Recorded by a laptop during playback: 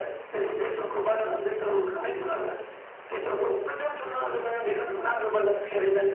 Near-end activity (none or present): none